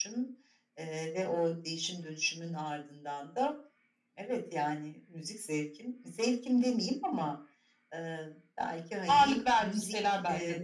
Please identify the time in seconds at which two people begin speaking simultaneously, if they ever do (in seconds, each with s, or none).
9.1 s